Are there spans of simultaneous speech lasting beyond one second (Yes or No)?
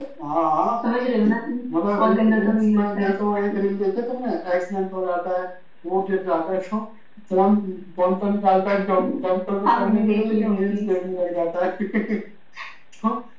Yes